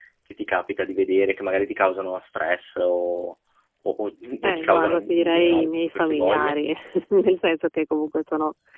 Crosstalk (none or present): present